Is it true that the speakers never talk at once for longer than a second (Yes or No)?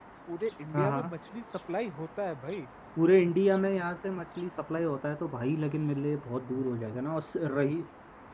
Yes